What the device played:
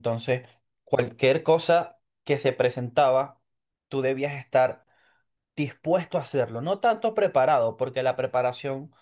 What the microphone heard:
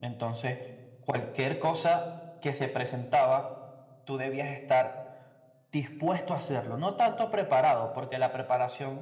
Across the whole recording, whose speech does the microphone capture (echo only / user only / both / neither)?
echo only